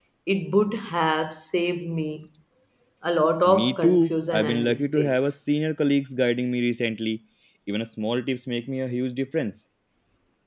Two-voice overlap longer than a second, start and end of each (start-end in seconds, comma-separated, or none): 3.5-5.4